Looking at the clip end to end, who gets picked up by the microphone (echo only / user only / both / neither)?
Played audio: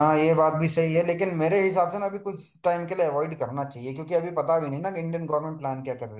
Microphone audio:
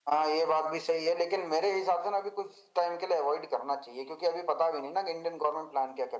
echo only